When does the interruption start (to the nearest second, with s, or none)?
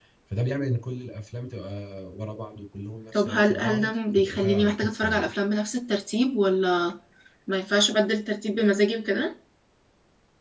3 s